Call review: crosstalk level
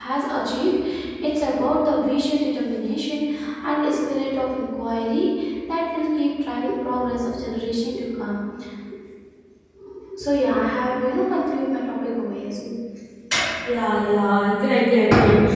none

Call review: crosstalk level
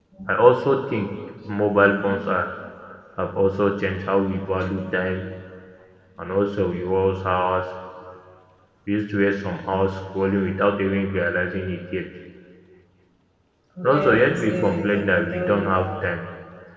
present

